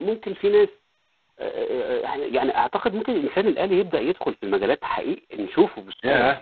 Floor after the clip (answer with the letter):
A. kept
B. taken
B